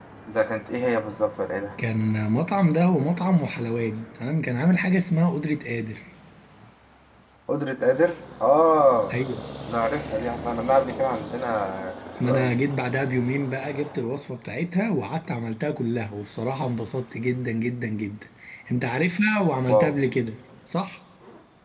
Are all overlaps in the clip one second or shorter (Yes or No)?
Yes